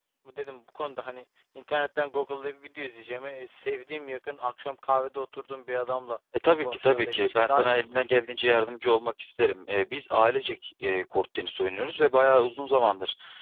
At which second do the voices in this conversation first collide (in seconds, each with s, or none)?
6.6 s